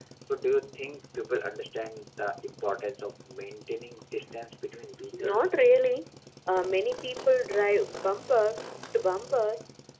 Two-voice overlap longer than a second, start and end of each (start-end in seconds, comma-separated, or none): none